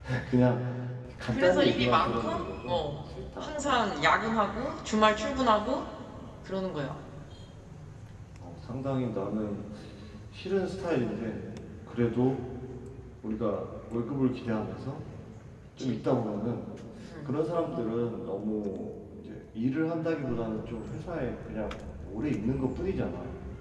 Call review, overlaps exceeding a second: present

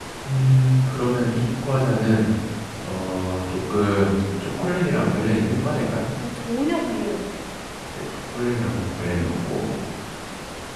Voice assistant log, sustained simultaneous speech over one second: none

